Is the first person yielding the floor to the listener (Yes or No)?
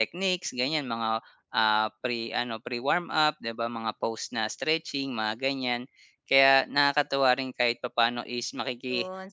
Yes